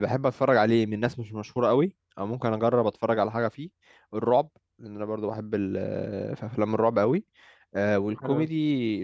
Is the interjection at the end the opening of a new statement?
No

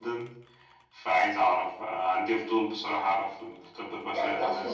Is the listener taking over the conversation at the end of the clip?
Yes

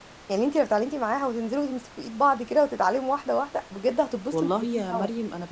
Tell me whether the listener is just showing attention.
No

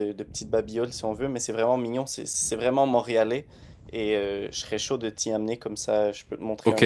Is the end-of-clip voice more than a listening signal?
Yes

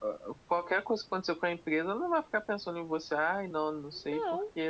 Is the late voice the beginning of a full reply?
No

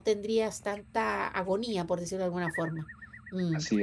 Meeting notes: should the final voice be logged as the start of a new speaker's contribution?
No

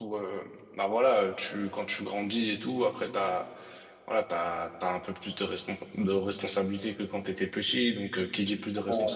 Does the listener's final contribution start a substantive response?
No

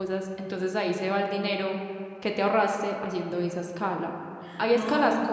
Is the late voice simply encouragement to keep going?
Yes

